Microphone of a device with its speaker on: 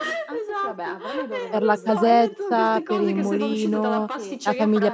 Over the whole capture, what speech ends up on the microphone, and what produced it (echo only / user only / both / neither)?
both